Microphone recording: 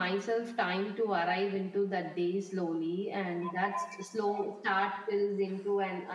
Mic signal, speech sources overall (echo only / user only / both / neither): echo only